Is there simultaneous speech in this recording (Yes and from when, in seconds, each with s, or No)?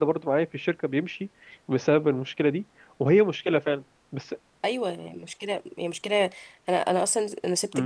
No